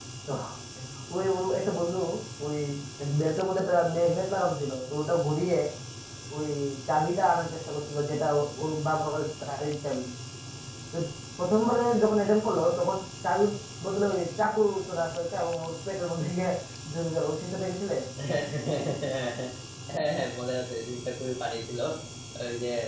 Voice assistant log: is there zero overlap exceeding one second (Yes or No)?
Yes